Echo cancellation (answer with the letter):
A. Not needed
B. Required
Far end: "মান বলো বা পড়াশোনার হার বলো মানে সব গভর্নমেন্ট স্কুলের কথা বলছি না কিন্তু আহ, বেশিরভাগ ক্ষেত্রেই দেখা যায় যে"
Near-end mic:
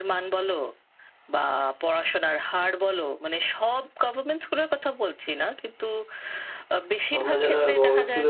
B